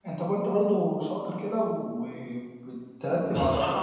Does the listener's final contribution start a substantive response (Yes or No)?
Yes